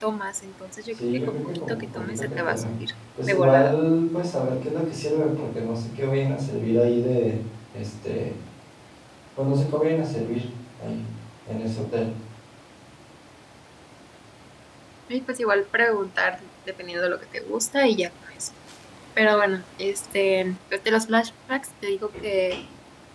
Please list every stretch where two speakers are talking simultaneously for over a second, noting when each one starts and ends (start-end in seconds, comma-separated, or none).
1.1-2.7